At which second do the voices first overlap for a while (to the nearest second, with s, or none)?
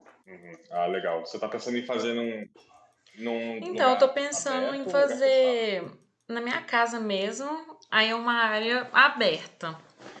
4 s